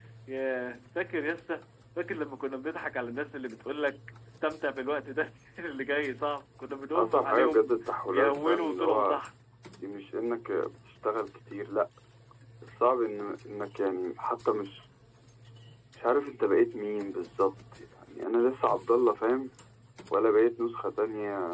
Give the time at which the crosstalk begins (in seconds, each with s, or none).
7.0 s